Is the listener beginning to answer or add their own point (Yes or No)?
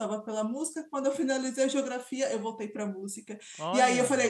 No